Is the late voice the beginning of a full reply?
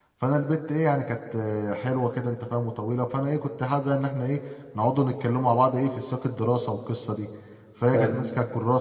No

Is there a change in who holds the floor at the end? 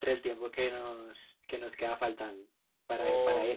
Yes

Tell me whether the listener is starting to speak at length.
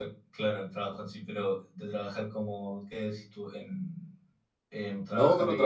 Yes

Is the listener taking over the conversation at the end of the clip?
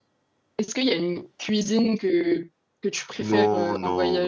Yes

